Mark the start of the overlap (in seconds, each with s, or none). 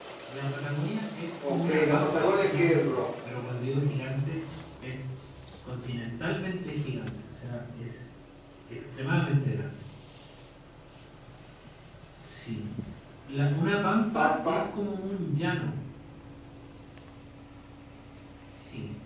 1.5 s